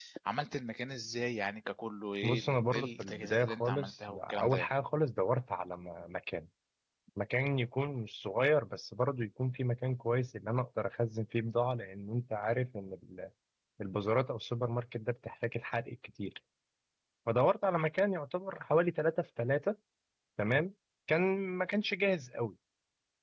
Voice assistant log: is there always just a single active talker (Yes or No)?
No